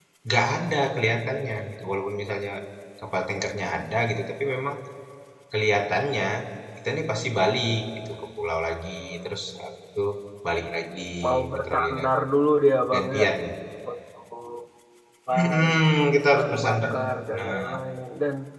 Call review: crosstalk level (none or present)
present